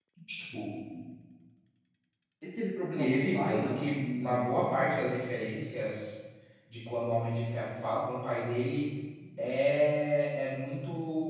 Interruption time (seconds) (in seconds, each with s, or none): 3.0 s